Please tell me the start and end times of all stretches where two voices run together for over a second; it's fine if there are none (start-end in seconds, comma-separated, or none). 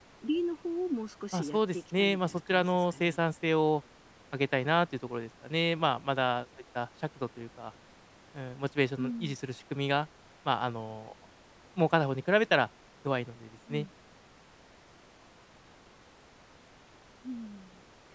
1.3-3.2